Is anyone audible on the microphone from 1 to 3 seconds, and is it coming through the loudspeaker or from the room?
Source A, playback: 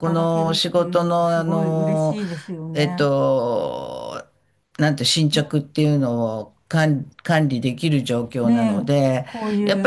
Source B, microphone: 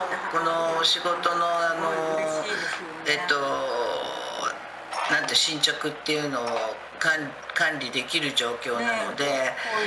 echo only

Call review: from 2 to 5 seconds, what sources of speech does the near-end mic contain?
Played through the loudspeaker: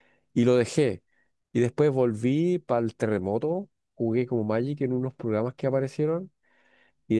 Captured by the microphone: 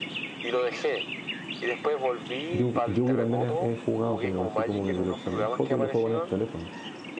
both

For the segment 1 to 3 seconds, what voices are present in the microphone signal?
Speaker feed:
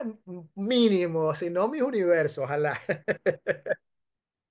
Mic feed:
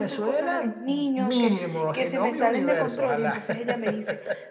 both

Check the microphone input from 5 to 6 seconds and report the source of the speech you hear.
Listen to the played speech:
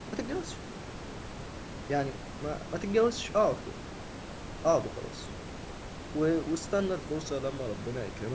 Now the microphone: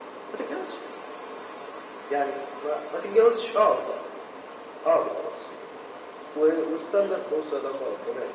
echo only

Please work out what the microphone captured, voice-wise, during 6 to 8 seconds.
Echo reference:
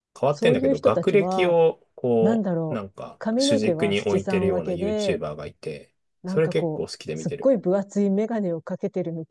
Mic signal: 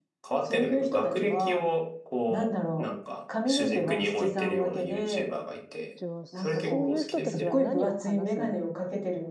both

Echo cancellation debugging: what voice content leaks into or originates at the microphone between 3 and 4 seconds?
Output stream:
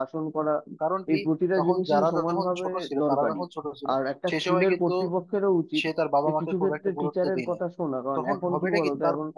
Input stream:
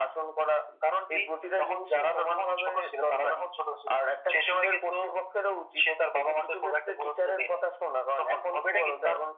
echo only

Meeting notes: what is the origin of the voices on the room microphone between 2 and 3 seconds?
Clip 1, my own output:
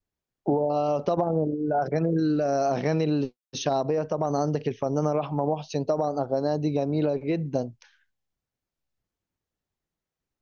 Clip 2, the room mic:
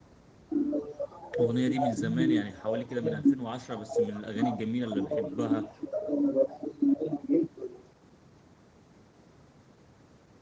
both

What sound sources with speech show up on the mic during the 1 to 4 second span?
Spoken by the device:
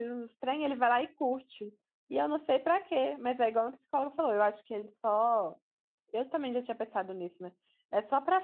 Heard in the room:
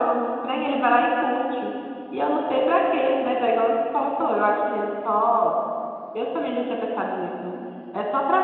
echo only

